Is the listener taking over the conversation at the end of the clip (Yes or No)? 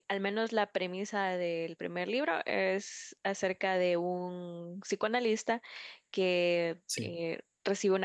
No